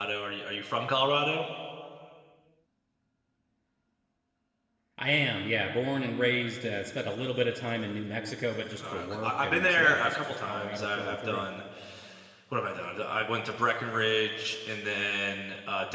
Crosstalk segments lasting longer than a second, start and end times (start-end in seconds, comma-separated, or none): 8.8-11.4